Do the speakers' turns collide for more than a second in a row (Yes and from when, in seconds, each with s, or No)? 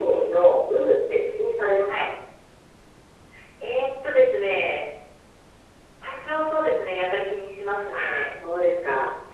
No